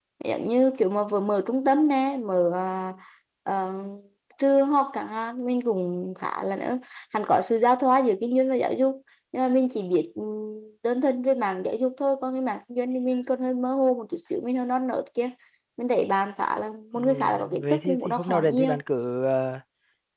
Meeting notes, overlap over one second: present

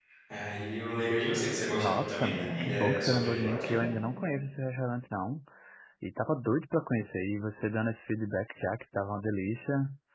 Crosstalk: present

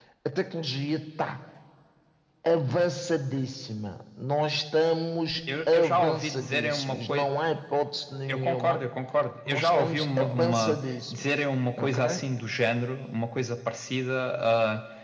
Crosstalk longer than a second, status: present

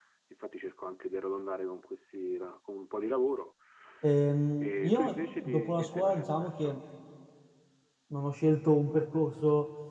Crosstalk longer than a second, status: present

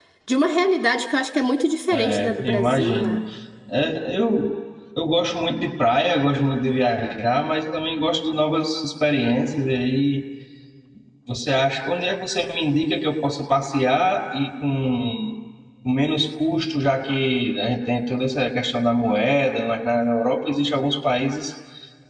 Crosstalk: present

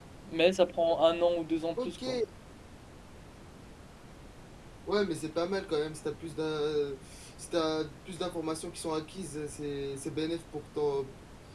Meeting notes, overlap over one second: none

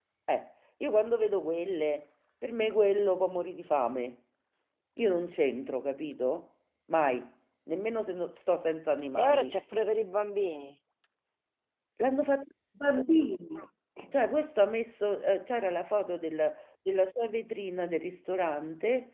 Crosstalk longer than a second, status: none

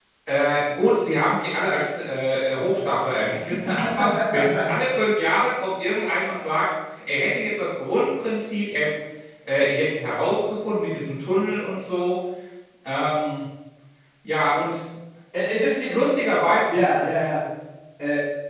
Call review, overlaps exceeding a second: none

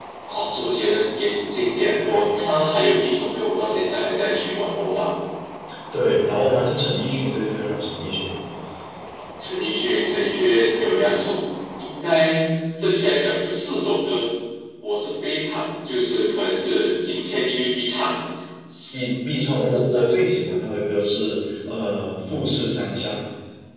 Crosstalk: none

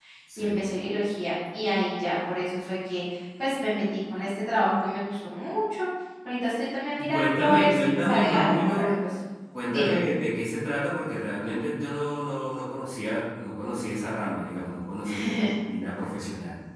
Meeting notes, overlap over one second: present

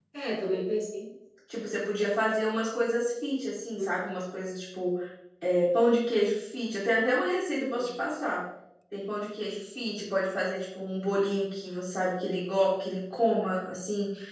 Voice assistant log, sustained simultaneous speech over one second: none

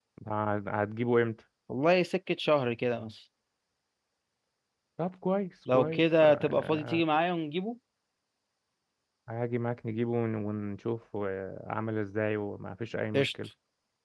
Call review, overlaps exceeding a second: present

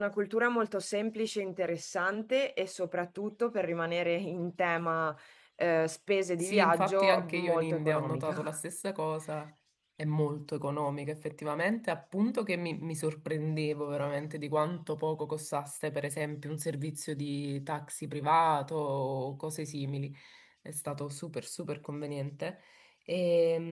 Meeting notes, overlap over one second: present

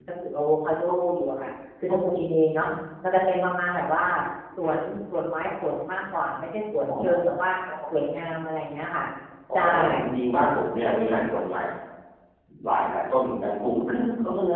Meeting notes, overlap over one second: none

